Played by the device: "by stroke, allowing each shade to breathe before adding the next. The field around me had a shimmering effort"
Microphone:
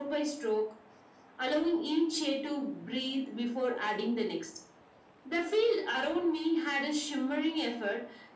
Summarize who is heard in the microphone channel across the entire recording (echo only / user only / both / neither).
echo only